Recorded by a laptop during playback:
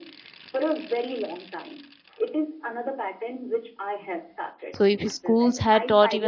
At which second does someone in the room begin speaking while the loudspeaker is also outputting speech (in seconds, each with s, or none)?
4.7 s